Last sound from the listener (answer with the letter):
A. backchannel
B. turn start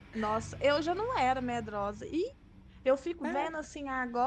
A